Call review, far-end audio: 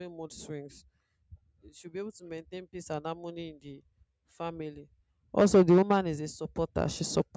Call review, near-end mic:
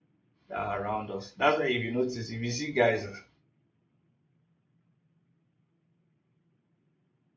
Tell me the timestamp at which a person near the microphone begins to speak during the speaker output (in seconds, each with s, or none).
0.5 s